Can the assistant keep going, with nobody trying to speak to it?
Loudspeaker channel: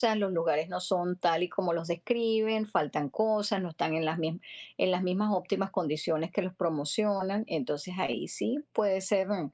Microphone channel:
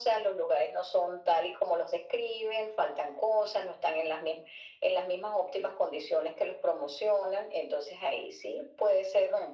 Yes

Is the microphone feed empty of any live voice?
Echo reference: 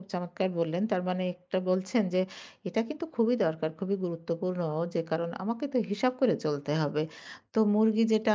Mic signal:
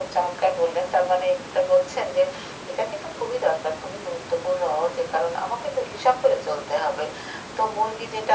Yes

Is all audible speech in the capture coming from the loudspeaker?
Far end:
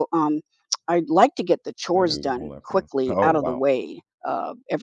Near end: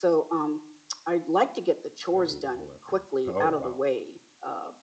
Yes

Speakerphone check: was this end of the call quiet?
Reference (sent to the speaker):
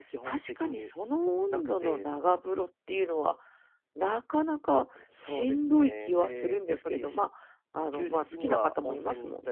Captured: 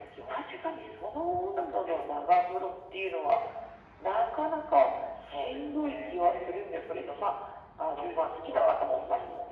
Yes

